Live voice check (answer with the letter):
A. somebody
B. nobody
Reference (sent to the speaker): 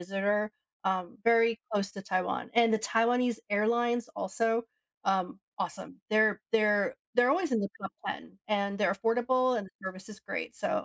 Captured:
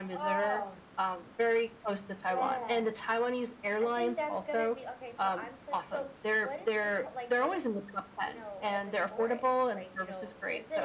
A